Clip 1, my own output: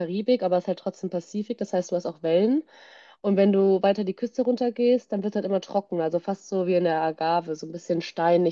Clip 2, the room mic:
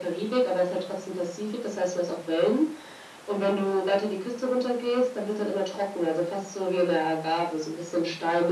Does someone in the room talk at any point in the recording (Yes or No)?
No